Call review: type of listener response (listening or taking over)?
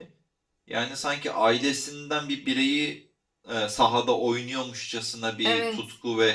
listening